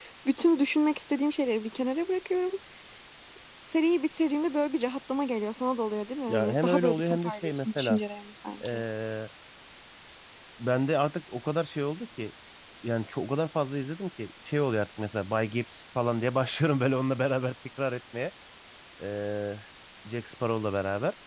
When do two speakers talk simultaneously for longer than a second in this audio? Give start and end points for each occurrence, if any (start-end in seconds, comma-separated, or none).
6.3-8.0